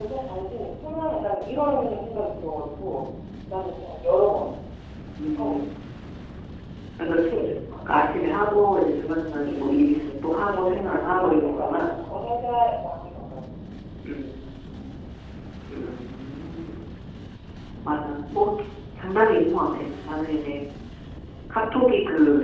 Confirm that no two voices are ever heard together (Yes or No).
No